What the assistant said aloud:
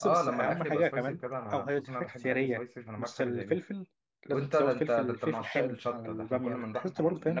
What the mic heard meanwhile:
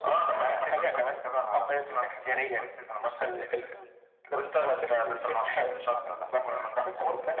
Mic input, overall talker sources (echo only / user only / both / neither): echo only